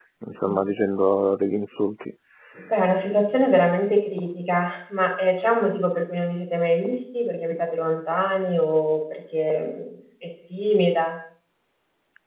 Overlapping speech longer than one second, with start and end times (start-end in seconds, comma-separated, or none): none